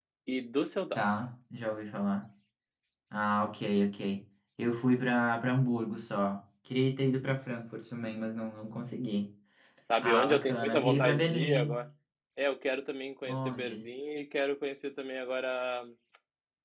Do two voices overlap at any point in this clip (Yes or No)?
Yes